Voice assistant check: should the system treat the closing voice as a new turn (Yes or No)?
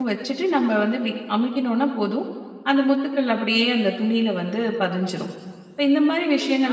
Yes